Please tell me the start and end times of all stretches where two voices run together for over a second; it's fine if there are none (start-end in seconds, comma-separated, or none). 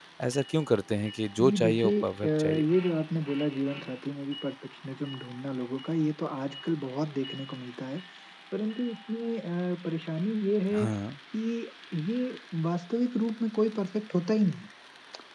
1.4-2.6